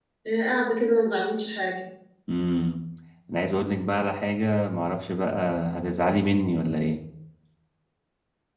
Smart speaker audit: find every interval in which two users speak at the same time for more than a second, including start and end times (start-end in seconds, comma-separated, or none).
none